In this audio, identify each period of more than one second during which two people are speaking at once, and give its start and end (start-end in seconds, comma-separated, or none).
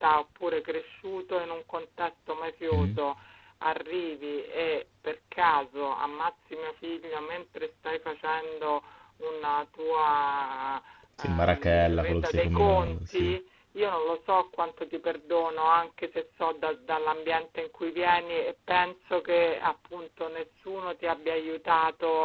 11.2-13.3